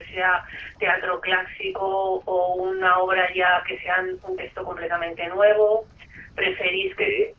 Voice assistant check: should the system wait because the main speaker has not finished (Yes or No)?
Yes